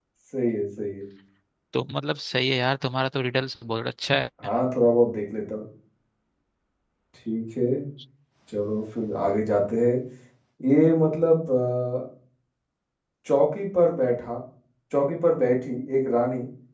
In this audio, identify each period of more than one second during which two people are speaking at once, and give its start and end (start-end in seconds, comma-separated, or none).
none